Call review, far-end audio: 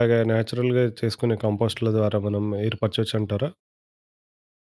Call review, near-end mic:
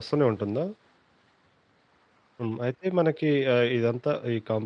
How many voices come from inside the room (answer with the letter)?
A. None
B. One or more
B